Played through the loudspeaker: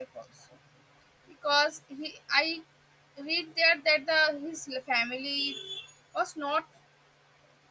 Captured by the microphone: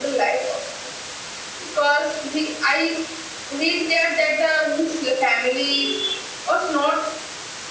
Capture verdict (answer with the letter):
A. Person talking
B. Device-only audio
B